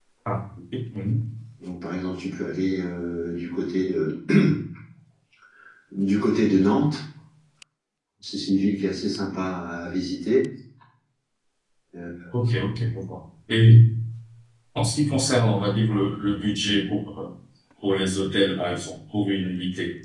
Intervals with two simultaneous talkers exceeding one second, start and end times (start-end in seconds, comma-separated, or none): none